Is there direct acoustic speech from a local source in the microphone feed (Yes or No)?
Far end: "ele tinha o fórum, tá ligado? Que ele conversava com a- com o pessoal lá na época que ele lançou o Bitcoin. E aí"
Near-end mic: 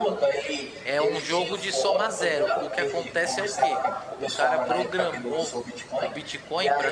Yes